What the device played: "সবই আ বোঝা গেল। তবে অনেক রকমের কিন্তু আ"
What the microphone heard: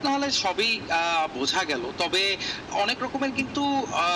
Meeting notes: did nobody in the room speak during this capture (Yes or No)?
Yes